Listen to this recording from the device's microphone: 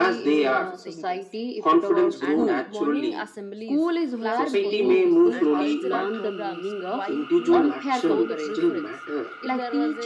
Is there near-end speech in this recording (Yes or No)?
Yes